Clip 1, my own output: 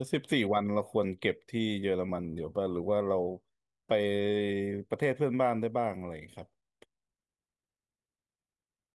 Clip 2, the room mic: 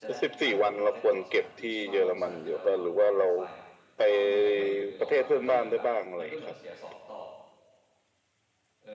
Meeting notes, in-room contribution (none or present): present